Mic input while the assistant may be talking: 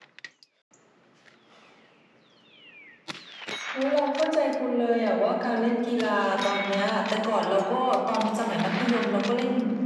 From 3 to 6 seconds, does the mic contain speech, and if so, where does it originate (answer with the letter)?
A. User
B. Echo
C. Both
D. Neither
B